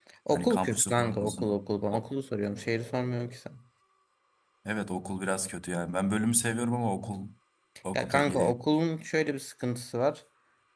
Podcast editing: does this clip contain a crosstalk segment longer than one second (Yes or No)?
Yes